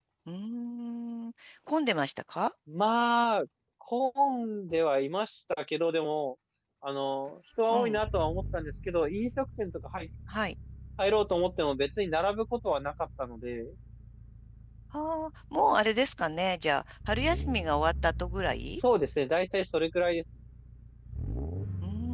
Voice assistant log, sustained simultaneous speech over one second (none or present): none